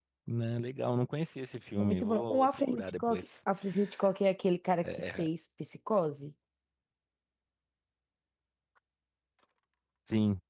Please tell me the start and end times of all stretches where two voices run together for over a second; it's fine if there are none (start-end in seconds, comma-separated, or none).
1.8-3.2